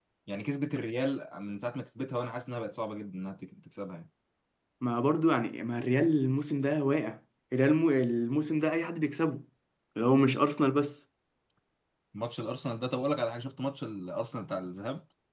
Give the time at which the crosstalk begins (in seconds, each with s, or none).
none